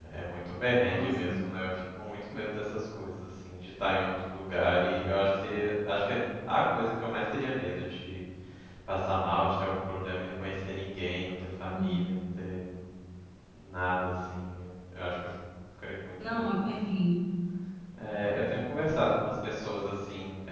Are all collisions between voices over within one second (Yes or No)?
Yes